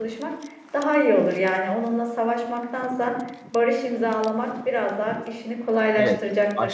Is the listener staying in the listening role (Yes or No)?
No